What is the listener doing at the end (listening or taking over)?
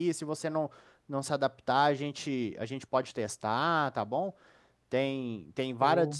listening